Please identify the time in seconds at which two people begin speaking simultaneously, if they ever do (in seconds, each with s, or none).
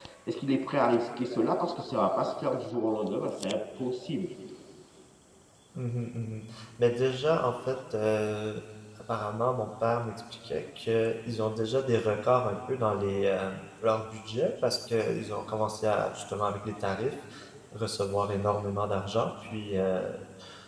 none